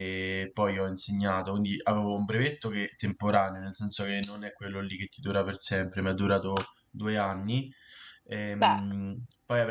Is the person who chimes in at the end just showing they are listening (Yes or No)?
Yes